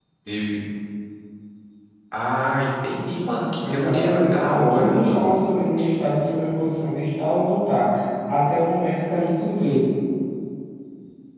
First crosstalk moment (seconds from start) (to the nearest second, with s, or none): 4 s